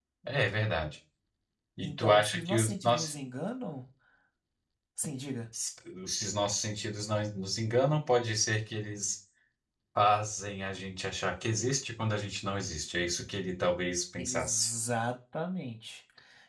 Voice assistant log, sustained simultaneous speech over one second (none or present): present